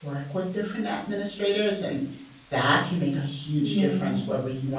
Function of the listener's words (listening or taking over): listening